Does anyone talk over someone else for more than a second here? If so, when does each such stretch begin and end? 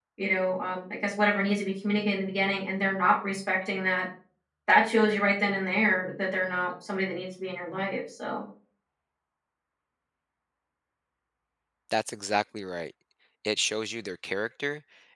none

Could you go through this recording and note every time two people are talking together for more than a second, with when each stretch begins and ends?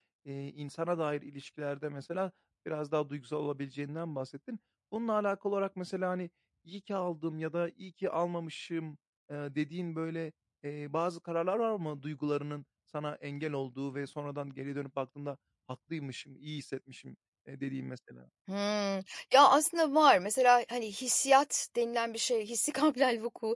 none

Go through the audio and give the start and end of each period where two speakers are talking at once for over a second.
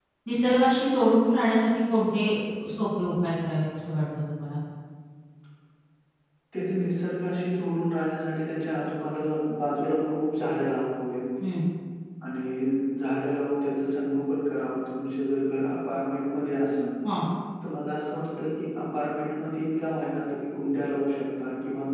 none

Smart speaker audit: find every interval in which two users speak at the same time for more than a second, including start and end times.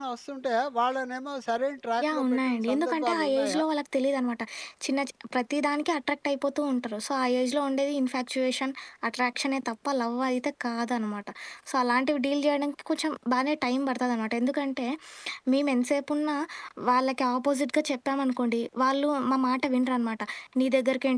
2.1-3.6

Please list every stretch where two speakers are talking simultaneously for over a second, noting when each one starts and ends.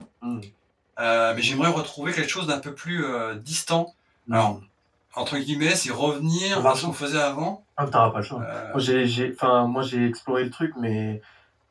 none

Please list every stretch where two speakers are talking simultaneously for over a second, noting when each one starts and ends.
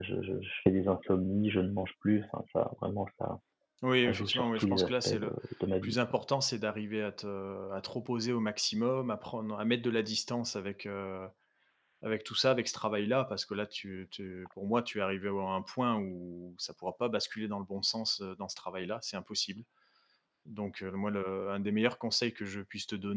4.0-5.3

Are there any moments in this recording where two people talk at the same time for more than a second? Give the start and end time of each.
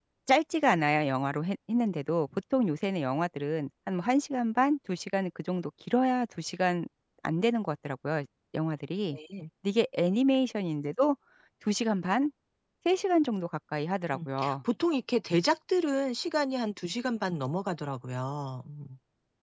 none

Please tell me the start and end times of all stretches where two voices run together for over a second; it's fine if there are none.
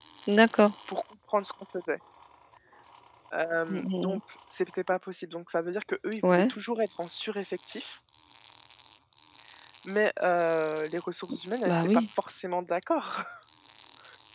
none

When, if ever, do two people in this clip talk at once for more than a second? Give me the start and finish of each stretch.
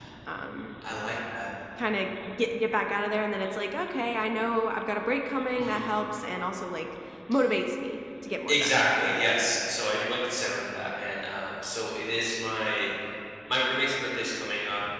none

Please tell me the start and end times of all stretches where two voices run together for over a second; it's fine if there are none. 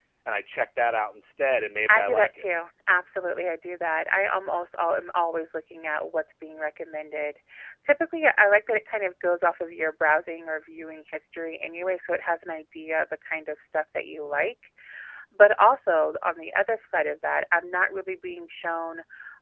none

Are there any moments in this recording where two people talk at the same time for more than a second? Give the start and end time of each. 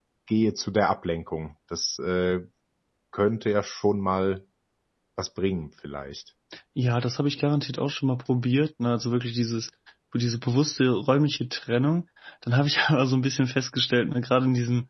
none

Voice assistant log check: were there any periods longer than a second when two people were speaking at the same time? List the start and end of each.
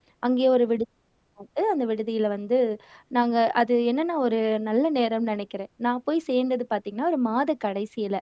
none

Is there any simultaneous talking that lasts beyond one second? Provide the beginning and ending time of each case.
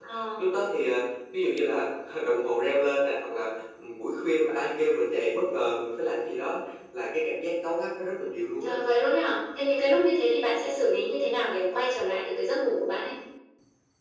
none

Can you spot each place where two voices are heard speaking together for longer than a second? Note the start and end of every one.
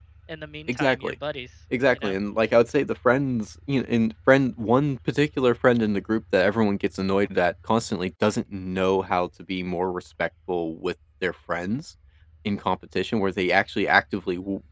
none

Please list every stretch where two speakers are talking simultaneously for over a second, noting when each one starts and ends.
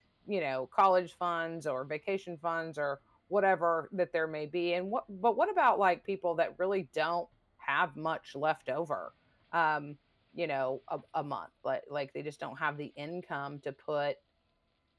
none

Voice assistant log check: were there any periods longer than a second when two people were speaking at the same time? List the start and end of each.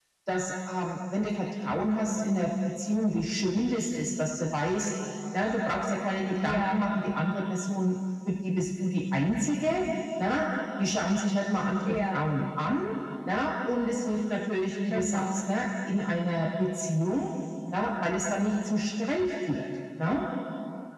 none

